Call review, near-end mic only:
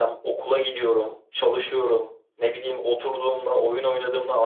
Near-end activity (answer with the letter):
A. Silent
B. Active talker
A